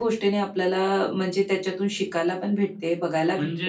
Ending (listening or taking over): taking over